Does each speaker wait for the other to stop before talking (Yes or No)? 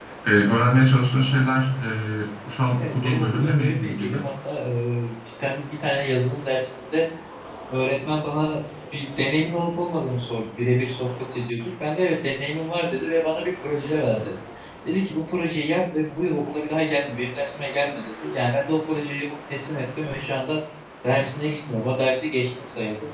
No